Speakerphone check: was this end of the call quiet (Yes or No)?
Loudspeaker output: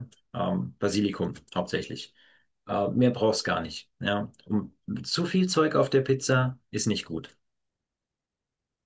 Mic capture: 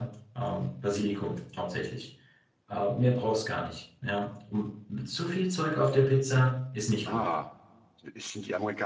No